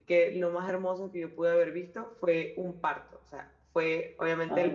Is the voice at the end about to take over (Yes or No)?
No